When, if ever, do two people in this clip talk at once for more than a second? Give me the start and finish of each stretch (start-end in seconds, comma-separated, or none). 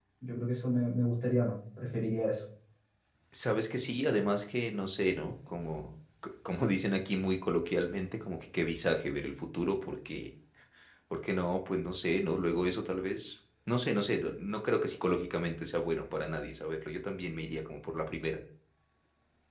none